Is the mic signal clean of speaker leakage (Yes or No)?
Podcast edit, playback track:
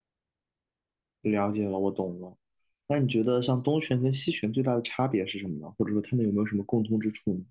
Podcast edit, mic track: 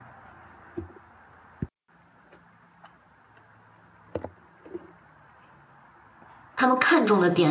Yes